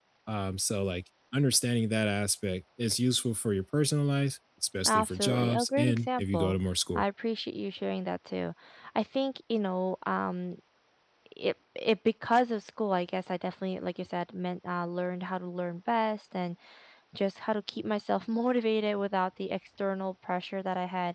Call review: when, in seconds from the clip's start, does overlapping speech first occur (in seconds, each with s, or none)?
4.8 s